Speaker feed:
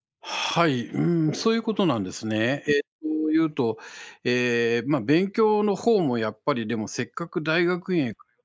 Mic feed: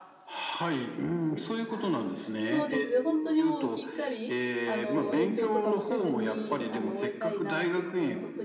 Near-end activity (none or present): present